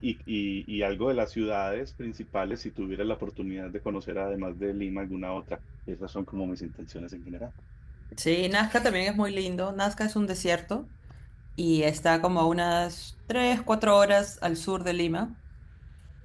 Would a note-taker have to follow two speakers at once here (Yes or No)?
No